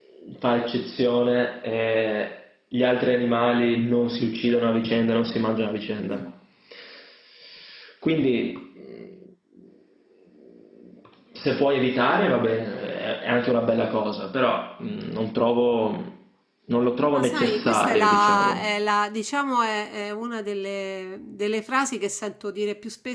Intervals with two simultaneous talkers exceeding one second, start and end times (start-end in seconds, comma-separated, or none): 17.1-18.7